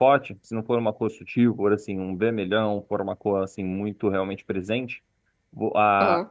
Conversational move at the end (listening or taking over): listening